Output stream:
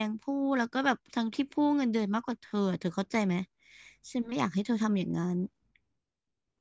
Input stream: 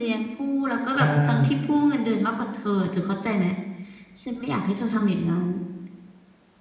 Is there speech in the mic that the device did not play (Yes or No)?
Yes